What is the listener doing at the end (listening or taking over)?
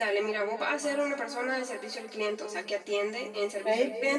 listening